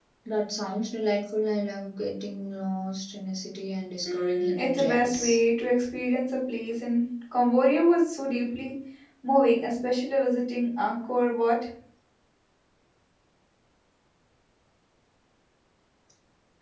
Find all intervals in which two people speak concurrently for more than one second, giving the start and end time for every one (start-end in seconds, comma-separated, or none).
4.0-5.4